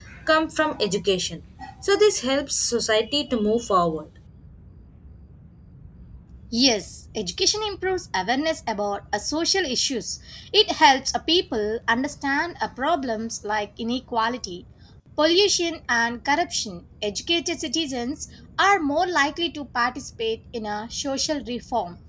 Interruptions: none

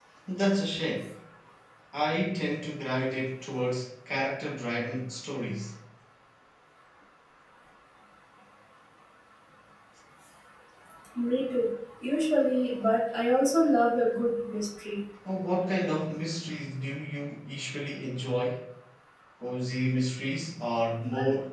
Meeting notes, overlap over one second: none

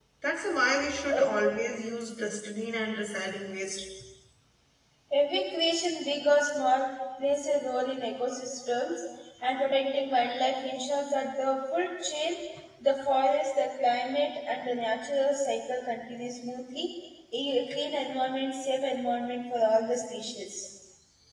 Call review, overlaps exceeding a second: none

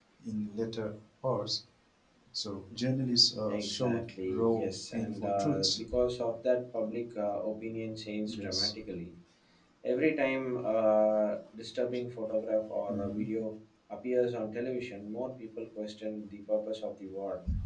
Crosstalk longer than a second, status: present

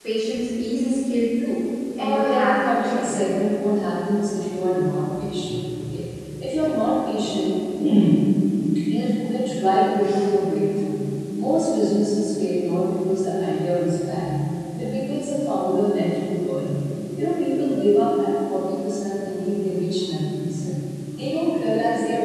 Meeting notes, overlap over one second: present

